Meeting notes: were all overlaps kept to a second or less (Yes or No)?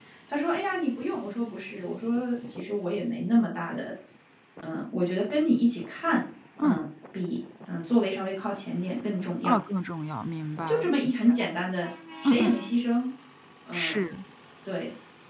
Yes